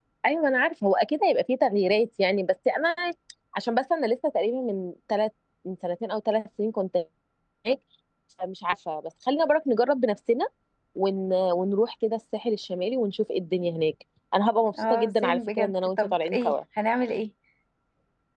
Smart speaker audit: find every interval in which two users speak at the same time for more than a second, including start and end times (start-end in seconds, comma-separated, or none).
14.8-16.5